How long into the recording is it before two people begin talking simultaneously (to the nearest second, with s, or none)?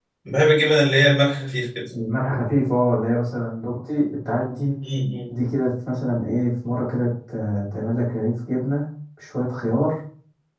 none